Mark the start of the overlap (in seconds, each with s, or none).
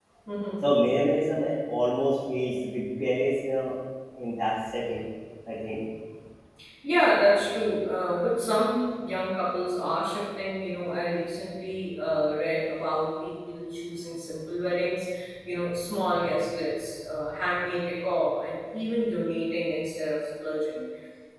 none